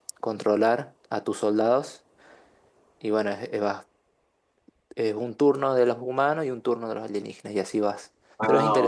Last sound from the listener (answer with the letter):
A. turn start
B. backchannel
A